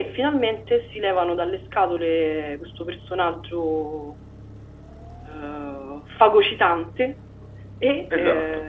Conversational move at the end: listening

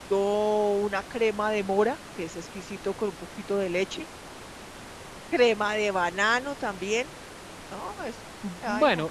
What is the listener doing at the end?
taking over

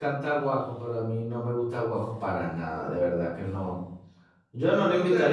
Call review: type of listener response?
listening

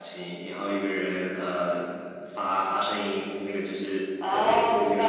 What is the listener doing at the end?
taking over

